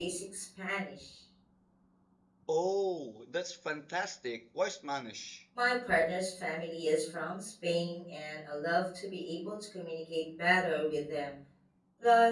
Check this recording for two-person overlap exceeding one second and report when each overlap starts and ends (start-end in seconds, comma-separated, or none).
none